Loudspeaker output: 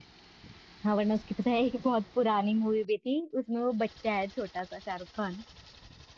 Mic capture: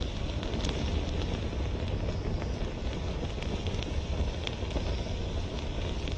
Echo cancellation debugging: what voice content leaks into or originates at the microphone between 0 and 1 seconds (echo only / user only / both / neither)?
neither